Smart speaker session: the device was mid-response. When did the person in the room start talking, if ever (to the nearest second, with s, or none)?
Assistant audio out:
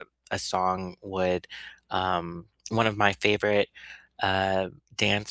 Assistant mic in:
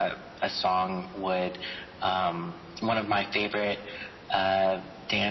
none